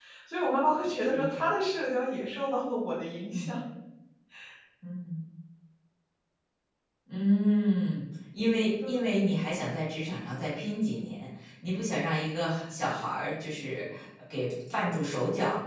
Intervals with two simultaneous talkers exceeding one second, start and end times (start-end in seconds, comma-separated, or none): none